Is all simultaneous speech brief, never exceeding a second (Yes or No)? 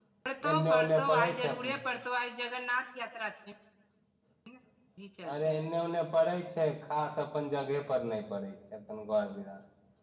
No